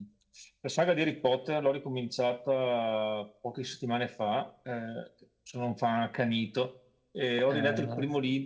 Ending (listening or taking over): listening